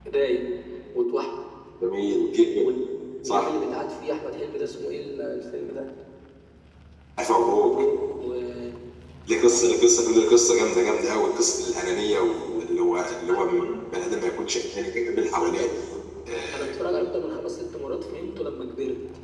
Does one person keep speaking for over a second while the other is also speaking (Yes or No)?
No